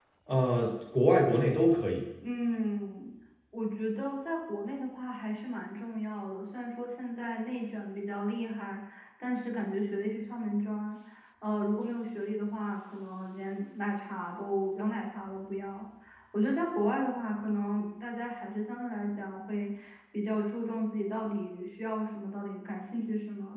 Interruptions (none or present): none